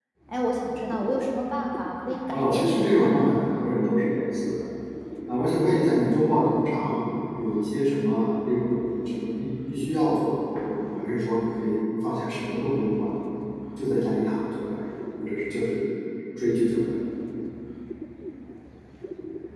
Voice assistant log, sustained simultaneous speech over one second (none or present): present